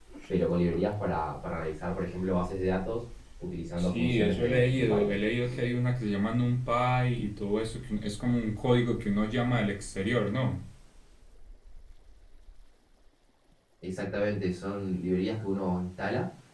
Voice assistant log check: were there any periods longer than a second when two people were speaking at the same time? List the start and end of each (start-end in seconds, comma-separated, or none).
3.8-5.2